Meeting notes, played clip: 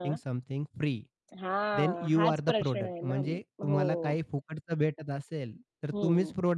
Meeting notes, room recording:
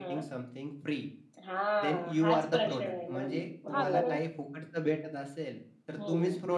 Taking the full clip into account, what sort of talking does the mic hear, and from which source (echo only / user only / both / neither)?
both